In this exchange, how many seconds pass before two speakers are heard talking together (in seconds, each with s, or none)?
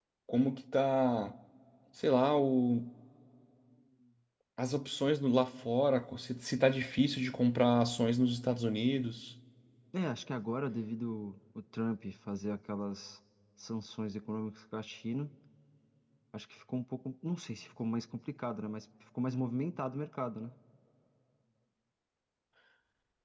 none